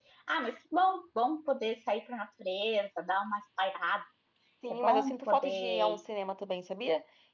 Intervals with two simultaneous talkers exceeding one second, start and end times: 4.7-6.0

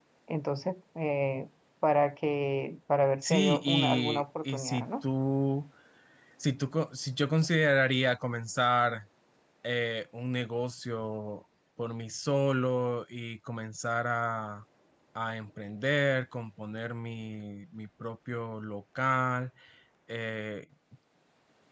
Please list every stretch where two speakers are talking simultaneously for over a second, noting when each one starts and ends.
3.2-4.9

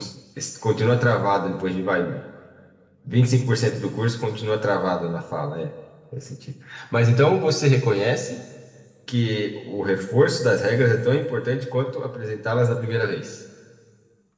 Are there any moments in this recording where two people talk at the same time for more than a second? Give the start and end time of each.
none

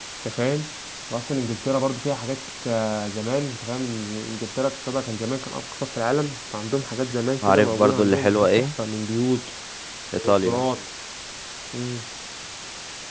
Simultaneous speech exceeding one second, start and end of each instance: 7.4-8.7

